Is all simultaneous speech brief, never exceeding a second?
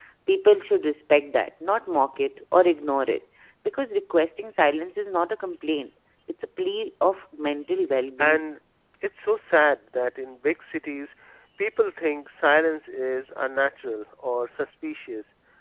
Yes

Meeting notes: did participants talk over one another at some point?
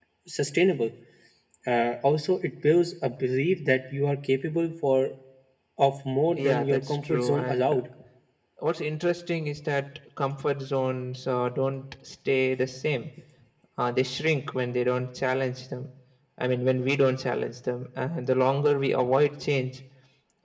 Yes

